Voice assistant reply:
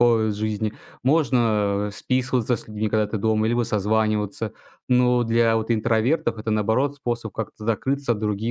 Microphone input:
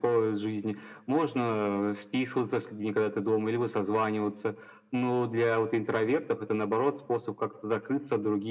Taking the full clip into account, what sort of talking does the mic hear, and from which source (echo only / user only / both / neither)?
echo only